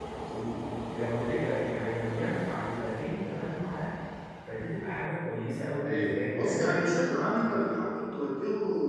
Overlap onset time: 6 s

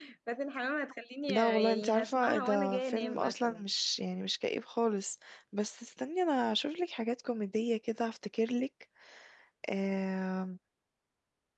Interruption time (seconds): 1 s

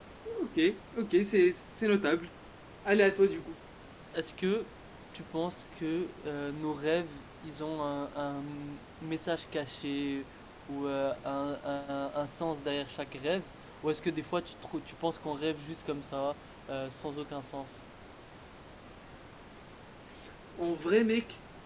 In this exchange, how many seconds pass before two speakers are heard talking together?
none

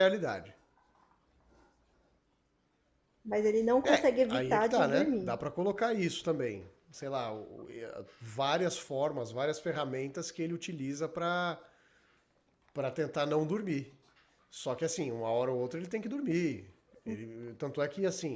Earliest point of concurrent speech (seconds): 4 s

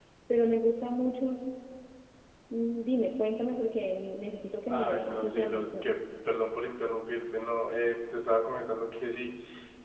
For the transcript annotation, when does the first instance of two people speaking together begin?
5 s

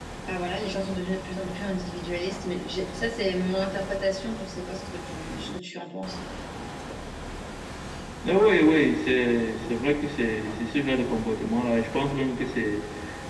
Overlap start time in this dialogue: none

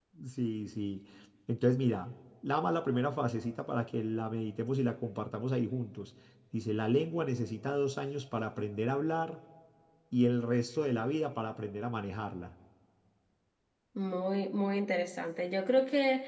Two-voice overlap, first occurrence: none

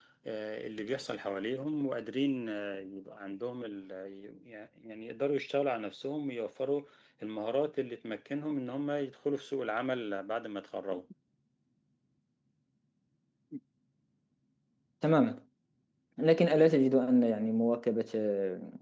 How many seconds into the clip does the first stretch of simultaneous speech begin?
none

